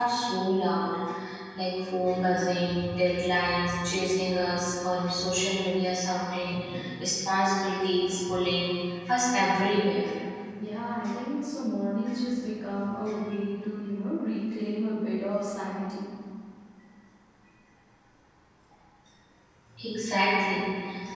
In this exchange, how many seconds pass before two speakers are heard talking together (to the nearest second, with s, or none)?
none